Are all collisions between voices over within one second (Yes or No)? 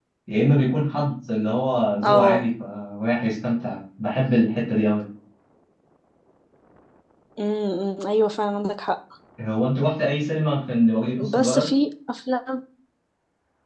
Yes